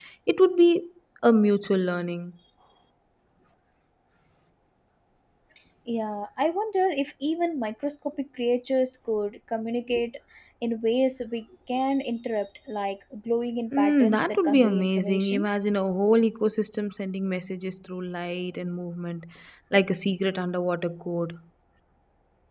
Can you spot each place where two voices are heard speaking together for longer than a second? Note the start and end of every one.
13.7-15.5

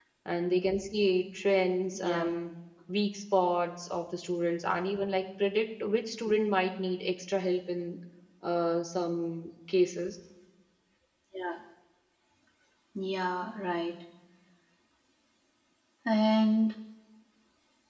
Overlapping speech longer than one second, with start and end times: none

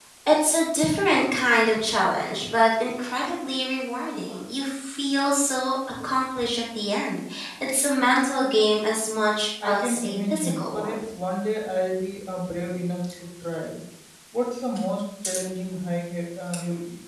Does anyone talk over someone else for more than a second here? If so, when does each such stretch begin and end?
9.6-11.0

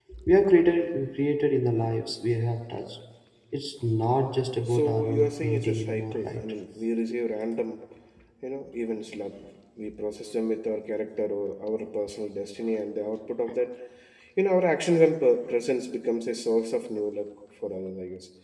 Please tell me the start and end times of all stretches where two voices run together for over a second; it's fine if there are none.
4.7-6.4

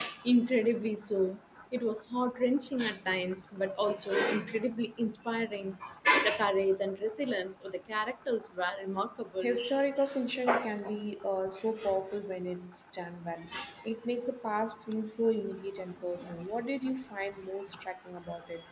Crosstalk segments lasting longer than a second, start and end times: none

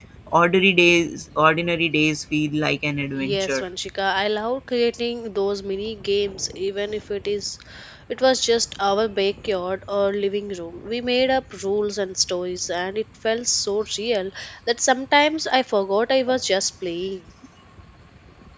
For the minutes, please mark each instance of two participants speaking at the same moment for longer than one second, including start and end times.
none

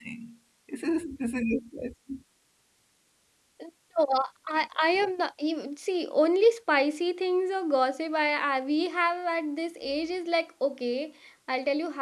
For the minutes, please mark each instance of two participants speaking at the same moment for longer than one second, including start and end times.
none

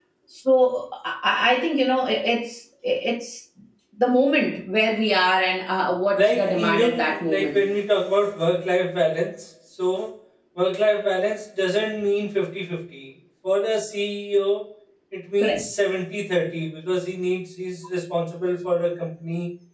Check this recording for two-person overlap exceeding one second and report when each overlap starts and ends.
6.2-7.7

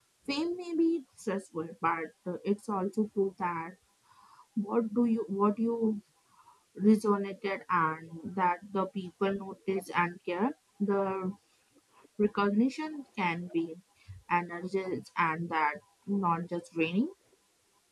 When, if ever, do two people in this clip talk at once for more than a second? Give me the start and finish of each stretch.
none

